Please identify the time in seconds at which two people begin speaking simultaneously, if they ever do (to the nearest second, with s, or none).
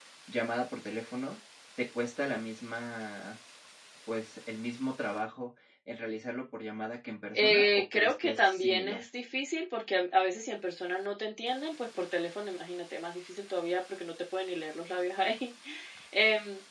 7 s